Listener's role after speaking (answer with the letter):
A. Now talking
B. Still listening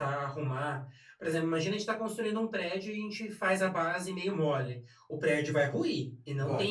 B